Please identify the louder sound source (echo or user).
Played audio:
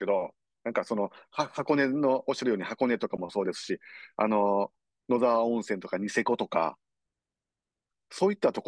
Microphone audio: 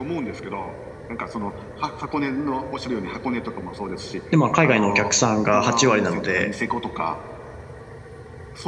user